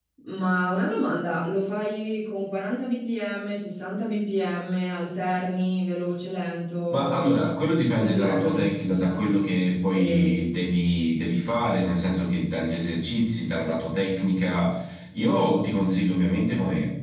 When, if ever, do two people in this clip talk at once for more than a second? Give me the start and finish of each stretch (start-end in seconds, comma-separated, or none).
6.9-9.4